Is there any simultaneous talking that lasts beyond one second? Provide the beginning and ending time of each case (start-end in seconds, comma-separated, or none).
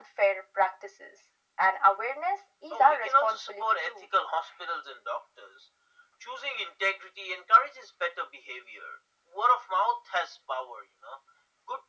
2.7-4.1